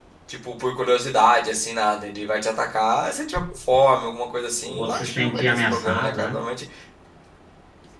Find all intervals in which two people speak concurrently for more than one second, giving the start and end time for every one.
4.7-6.3

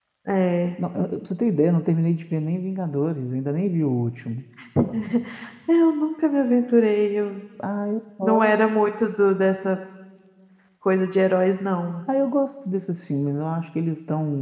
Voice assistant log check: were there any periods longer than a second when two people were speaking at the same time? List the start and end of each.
none

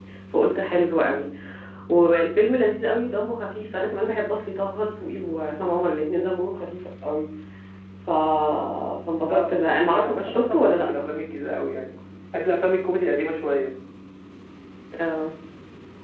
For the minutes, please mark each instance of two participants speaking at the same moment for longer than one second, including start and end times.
9.2-10.9

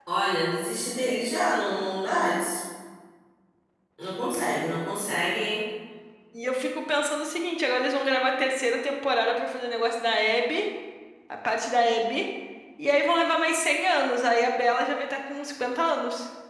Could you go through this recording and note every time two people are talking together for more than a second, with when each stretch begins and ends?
none

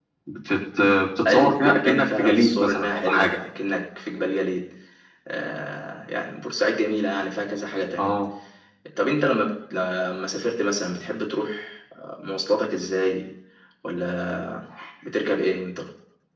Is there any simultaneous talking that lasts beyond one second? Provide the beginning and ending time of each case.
1.2-3.4

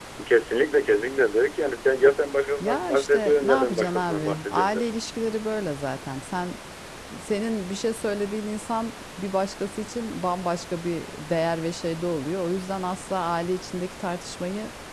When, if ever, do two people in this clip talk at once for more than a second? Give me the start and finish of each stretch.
2.6-4.9

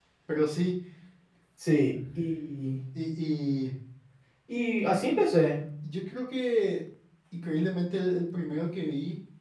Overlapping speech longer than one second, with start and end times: none

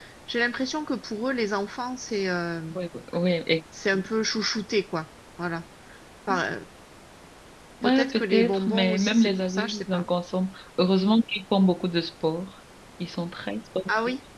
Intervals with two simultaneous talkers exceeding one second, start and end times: 7.8-10.1

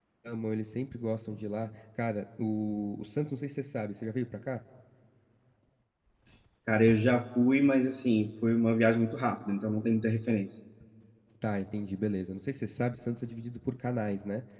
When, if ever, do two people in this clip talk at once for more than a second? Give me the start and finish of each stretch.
none

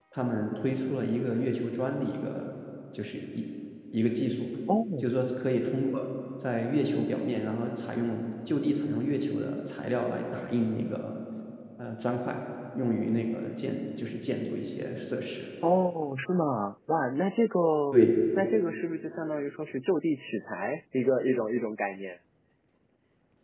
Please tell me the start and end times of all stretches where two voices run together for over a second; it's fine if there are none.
none

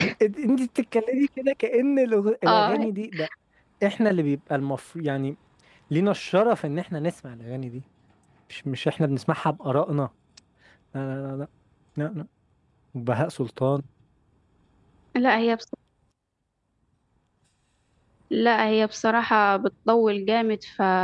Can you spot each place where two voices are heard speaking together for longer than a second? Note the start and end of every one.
none

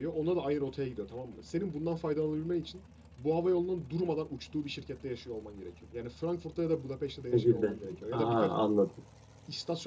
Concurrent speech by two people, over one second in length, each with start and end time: 7.3-8.5

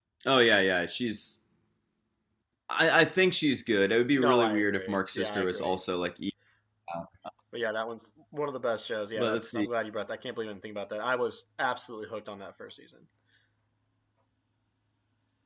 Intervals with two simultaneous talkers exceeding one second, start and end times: 4.2-5.7

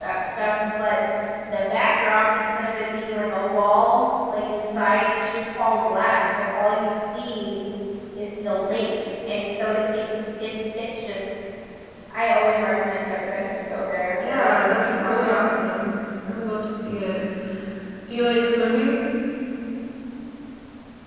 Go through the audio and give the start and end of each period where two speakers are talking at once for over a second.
14.2-15.5

